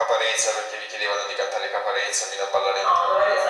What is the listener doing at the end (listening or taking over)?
taking over